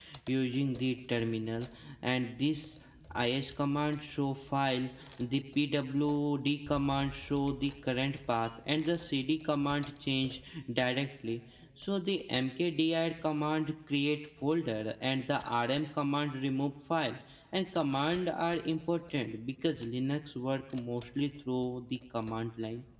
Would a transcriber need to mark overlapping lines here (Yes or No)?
No